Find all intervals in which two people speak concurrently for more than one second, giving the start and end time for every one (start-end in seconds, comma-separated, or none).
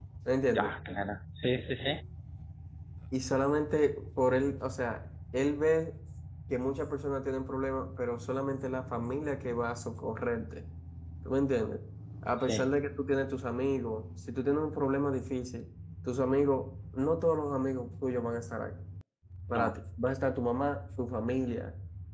none